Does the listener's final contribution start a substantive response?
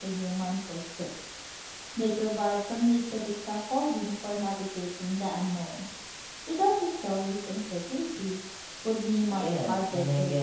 Yes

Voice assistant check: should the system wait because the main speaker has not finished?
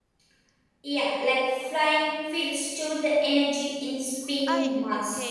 No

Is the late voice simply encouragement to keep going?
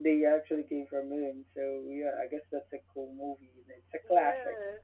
No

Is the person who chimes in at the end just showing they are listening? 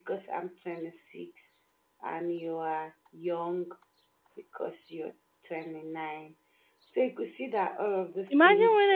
No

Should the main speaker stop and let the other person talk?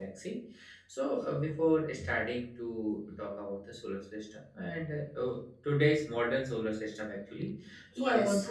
Yes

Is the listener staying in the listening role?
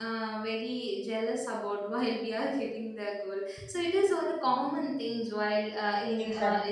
No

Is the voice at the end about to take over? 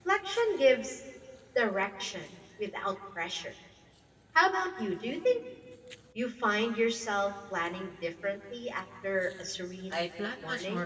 Yes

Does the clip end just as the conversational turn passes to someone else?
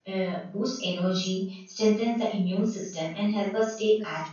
No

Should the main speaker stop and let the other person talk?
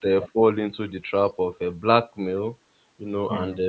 No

